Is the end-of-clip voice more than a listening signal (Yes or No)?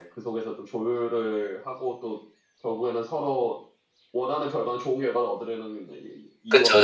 Yes